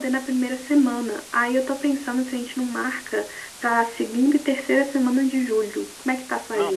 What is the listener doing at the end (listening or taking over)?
taking over